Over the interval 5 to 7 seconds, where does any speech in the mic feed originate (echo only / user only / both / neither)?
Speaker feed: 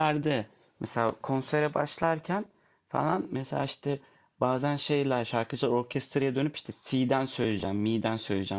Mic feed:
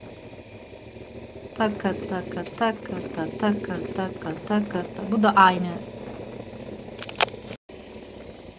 user only